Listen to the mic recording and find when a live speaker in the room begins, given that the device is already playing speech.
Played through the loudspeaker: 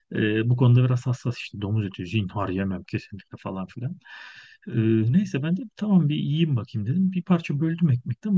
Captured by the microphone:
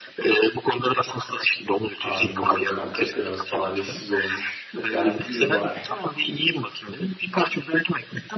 2.0 s

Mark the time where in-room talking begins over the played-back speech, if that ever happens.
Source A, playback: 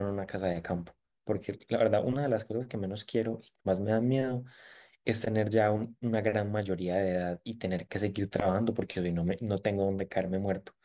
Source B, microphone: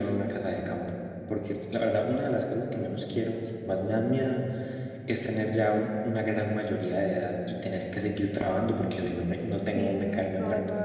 9.6 s

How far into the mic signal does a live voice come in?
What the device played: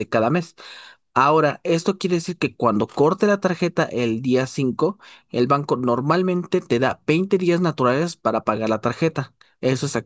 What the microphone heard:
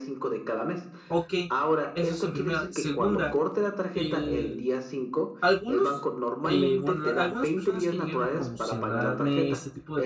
1.1 s

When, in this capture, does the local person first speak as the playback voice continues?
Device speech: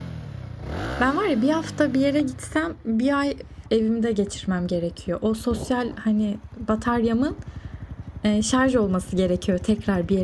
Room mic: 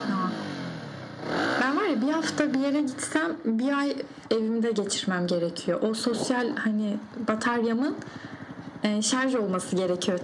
none

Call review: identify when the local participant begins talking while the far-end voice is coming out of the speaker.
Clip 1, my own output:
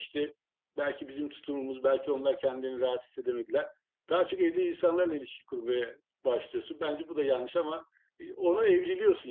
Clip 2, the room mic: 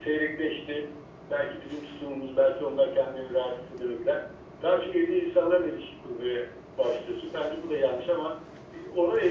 none

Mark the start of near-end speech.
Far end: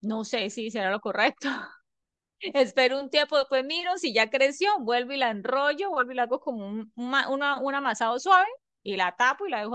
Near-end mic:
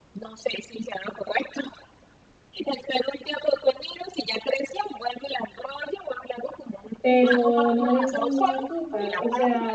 7.0 s

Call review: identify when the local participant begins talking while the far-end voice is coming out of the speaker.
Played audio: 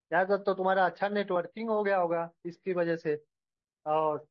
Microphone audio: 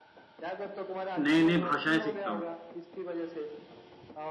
1.2 s

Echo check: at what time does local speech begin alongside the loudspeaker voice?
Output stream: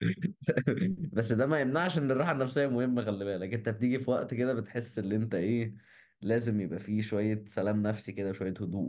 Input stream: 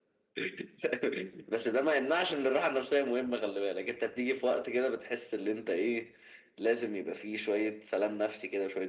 none

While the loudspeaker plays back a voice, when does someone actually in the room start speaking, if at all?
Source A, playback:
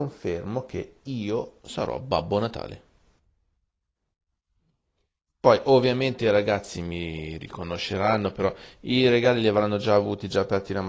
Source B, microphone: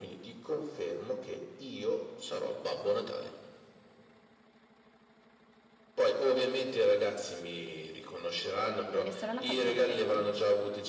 8.9 s

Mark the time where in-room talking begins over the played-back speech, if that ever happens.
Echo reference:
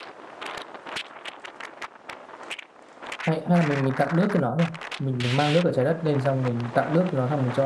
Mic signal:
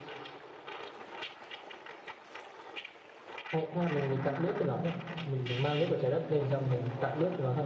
none

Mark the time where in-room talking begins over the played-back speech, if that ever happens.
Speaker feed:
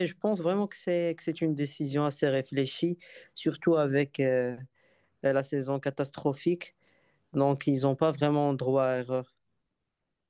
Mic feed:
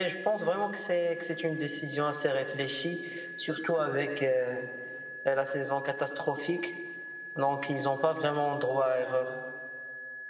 none

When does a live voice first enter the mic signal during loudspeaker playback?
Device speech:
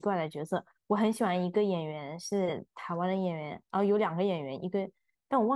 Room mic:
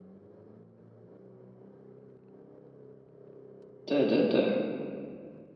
3.8 s

